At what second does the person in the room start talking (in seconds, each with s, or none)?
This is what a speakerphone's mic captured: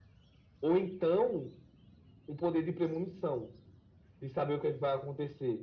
none